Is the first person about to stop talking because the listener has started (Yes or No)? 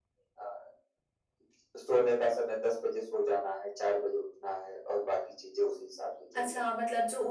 Yes